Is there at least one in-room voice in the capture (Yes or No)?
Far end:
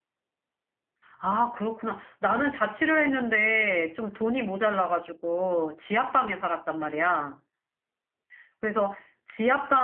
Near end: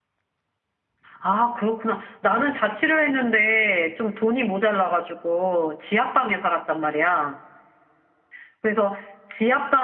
No